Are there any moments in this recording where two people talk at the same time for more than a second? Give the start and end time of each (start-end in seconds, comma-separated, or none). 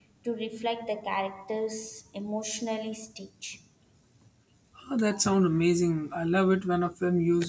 none